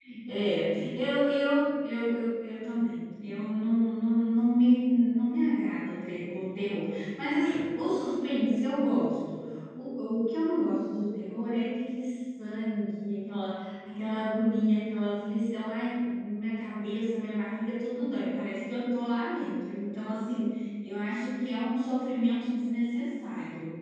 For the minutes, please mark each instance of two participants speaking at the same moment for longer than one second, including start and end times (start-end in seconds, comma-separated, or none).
none